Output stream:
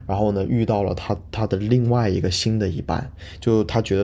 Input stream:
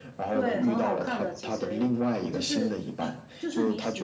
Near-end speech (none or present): present